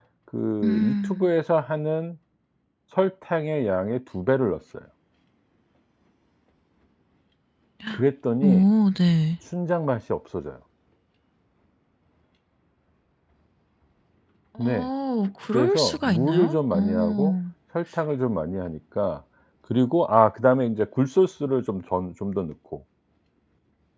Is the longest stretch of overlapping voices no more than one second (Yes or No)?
No